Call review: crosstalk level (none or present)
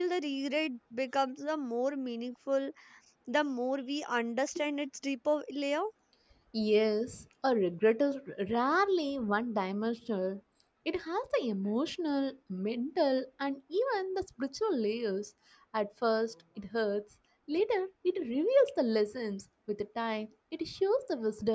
none